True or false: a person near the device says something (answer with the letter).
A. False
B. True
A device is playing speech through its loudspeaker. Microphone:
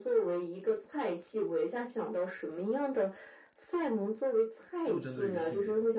B